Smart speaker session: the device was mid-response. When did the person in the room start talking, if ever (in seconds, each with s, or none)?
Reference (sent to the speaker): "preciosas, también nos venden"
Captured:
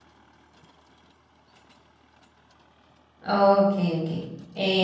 3.2 s